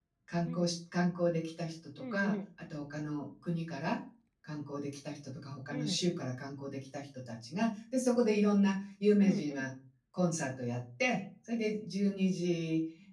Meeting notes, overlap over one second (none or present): none